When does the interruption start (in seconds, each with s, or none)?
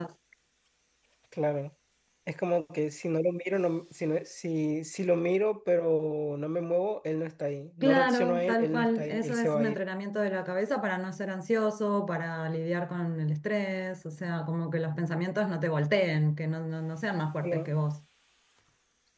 7.8 s